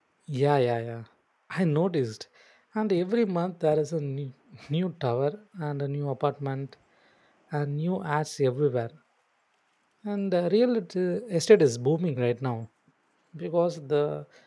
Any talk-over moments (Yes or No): No